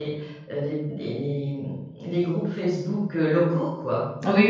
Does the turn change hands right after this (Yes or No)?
Yes